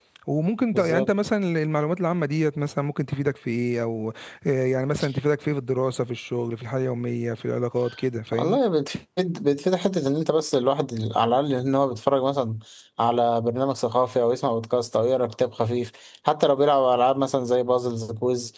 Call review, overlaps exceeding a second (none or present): none